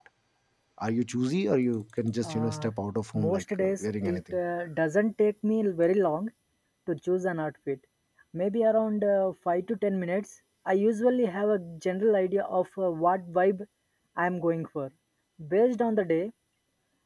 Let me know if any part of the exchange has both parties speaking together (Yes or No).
Yes